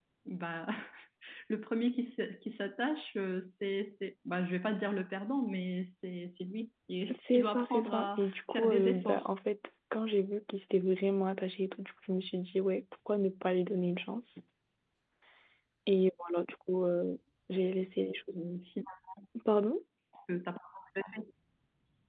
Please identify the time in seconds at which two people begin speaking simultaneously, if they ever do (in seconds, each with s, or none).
7.1 s